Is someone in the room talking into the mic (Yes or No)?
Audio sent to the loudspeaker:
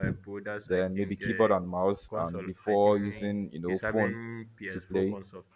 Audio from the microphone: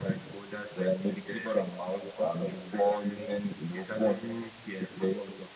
No